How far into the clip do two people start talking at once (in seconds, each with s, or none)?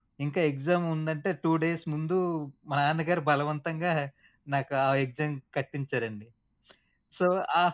none